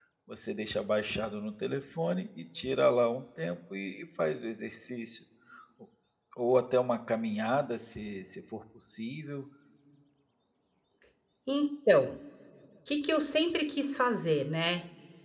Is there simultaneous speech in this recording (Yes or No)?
No